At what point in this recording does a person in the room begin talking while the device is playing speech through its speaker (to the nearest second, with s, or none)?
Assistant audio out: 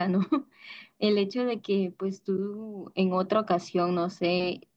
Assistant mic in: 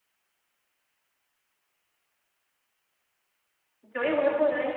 4 s